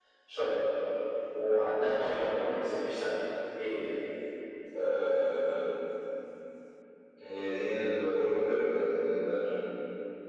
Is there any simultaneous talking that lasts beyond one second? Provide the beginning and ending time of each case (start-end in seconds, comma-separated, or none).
none